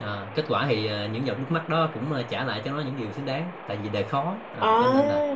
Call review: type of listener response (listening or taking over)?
listening